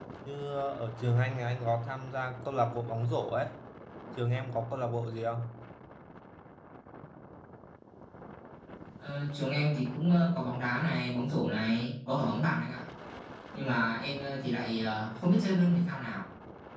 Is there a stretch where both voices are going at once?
No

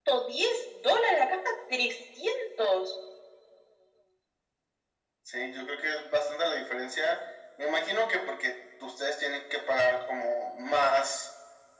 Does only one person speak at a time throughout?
Yes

